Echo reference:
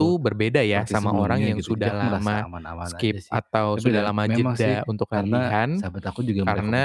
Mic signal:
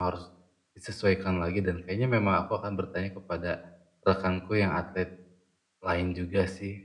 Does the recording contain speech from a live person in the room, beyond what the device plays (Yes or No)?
Yes